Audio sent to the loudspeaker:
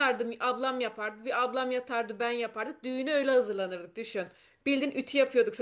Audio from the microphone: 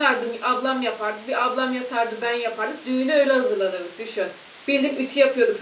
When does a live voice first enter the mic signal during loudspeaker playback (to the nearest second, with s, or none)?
none